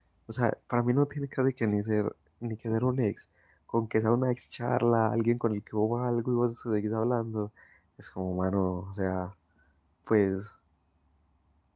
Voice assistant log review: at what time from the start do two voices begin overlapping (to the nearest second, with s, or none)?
none